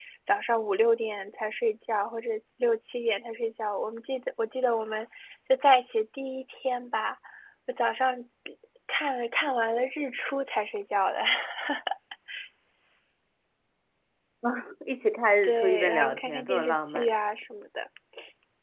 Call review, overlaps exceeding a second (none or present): present